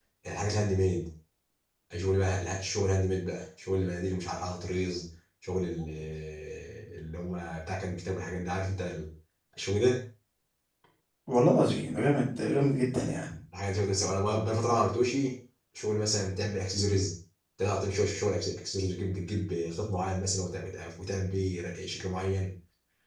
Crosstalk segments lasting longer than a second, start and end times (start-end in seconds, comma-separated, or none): none